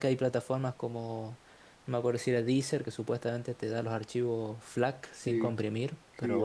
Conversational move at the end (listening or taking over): taking over